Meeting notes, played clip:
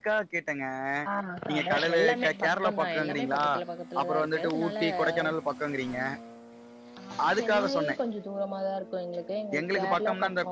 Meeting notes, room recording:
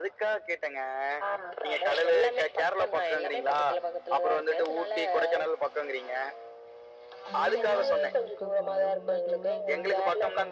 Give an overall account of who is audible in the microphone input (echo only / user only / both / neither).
both